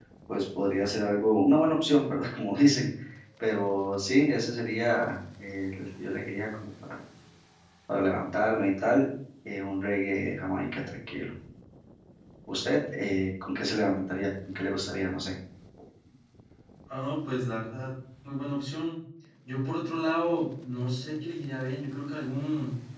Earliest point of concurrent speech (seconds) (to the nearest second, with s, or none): none